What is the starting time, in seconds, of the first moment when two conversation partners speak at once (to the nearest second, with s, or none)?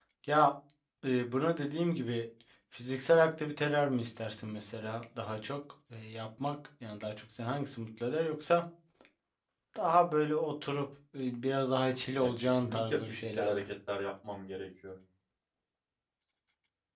12 s